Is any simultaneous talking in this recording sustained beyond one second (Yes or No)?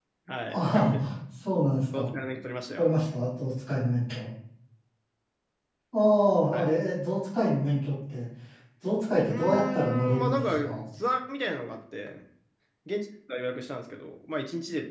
Yes